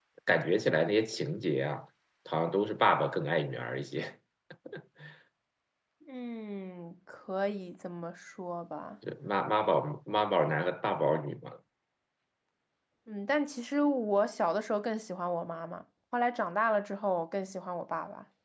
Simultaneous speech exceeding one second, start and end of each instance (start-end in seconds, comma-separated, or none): none